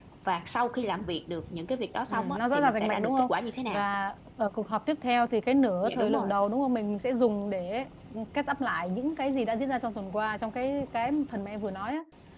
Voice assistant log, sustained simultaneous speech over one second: present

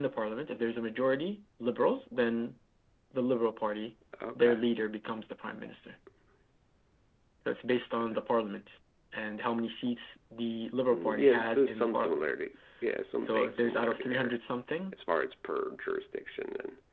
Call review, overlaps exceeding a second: present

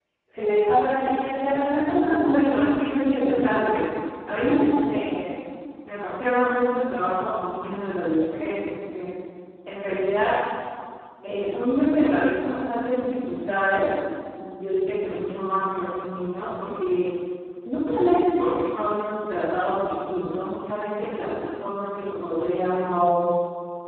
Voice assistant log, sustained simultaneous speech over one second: present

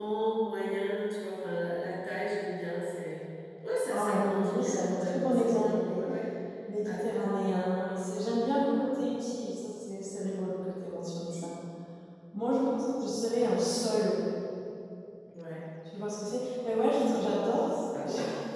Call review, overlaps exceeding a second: present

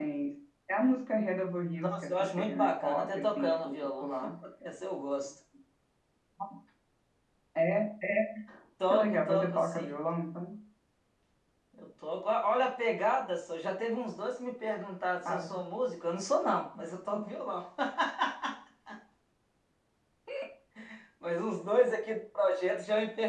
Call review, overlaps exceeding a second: present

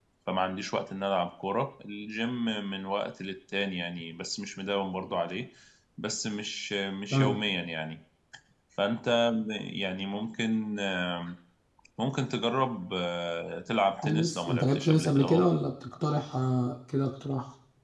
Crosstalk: present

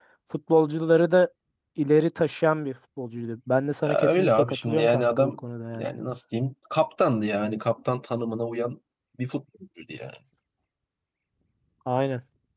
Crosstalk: present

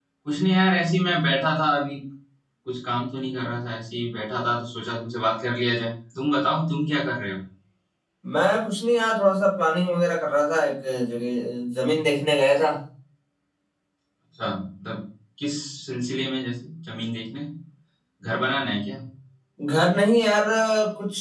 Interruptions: none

